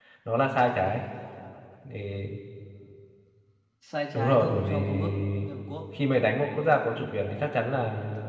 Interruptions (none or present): present